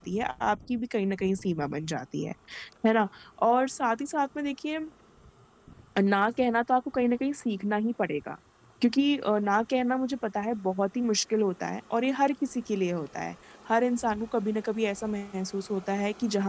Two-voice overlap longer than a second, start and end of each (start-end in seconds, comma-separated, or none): none